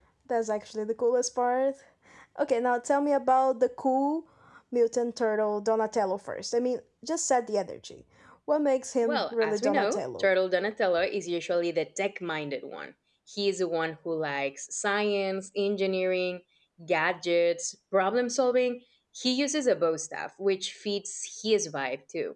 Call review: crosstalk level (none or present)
present